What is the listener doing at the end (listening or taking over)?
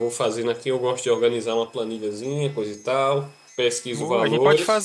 taking over